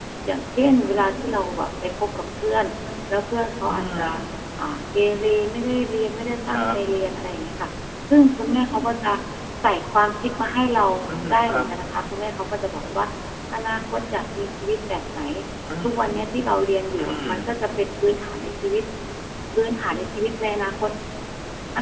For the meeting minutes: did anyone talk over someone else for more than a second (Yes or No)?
No